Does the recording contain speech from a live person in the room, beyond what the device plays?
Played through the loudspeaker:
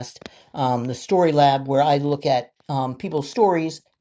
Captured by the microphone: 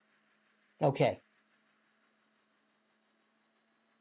Yes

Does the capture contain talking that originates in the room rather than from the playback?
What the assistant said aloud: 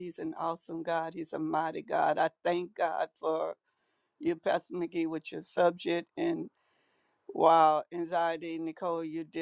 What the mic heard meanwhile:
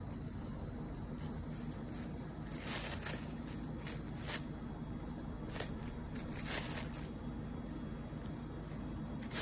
No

